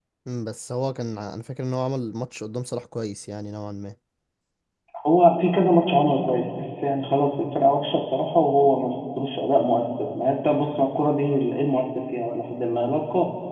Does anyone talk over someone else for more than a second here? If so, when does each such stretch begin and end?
none

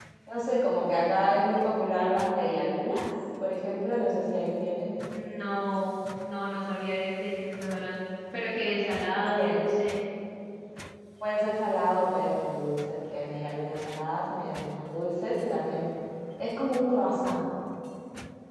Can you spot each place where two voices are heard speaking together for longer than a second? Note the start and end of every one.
none

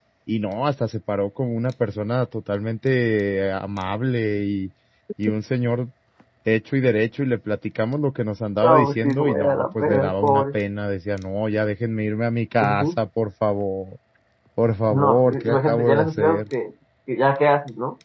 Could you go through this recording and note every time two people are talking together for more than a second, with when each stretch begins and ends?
8.6-10.4, 14.9-16.4

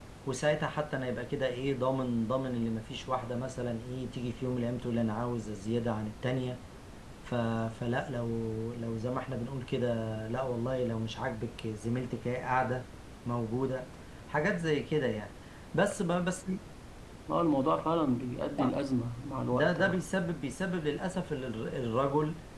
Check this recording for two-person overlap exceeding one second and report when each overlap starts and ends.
none

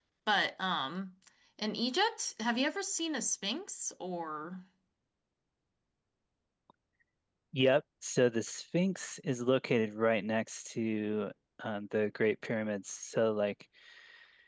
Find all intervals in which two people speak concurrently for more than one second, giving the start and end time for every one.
none

